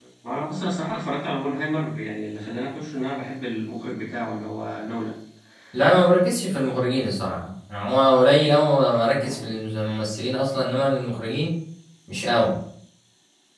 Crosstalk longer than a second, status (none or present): none